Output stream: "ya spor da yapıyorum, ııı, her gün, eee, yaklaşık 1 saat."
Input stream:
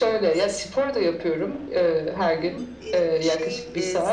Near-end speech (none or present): present